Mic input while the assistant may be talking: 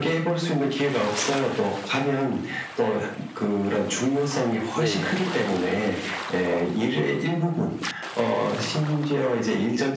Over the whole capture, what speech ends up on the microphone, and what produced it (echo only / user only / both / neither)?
both